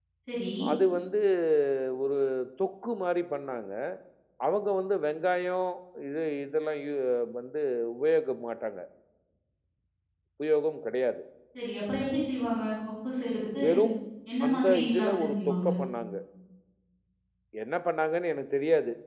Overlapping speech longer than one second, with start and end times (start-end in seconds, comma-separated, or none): 14.5-15.7